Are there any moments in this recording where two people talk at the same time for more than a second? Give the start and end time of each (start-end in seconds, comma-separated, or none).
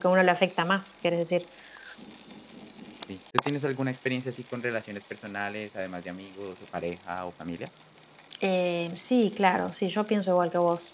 none